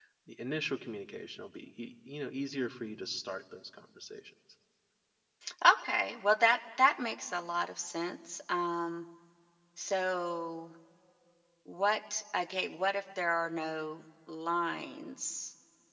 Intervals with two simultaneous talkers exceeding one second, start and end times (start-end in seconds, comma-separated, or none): none